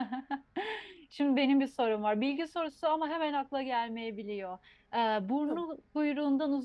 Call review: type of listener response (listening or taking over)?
listening